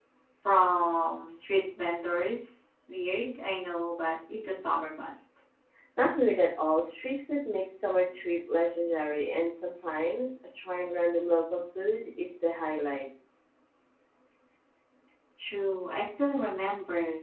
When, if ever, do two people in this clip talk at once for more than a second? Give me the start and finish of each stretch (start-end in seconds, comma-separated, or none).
none